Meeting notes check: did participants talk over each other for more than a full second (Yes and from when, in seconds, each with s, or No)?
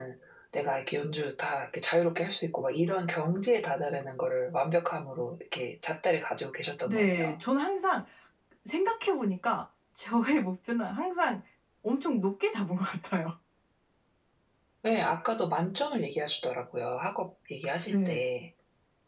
No